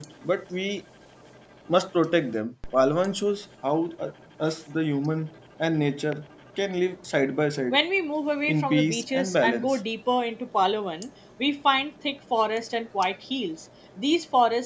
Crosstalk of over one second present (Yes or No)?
Yes